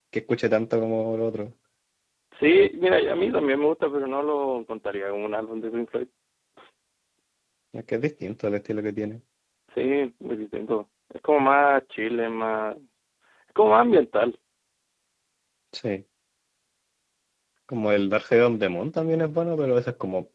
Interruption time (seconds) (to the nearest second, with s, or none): none